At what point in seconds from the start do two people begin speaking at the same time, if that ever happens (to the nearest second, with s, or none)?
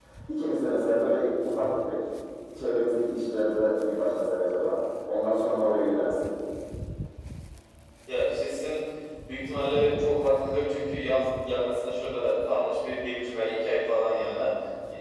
none